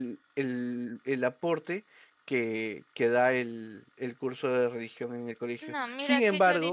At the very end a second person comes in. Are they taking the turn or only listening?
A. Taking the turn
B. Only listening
A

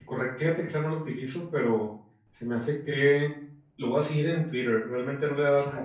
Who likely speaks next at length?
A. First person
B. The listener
A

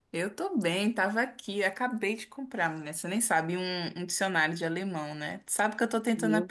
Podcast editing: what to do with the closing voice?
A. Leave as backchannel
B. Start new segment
A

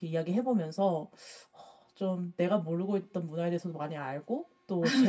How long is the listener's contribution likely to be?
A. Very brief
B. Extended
A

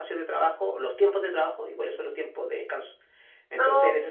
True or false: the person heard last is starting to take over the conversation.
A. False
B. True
A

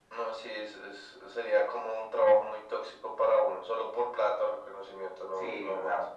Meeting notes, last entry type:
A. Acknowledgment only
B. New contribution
B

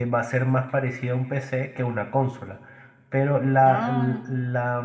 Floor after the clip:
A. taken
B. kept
B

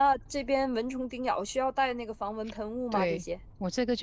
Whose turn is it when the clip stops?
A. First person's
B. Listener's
B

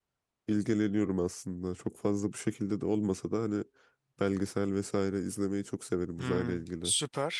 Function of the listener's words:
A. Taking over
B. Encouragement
A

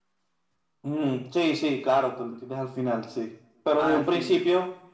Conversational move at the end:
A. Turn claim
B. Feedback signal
B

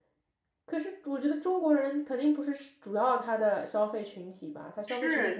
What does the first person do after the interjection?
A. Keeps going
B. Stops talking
B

